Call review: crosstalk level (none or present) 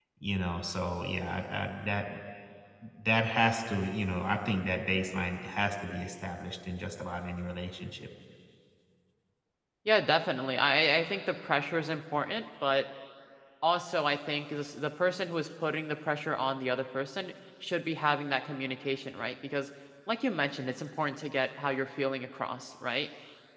none